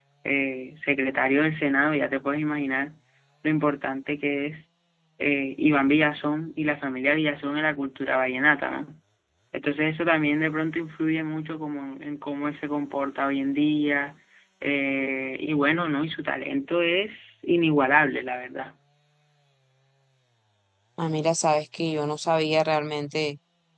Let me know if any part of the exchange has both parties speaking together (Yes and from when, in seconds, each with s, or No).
No